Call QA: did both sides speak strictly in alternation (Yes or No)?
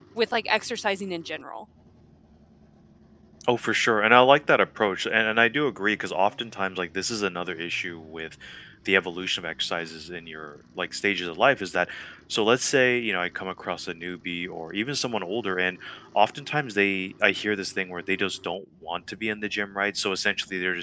Yes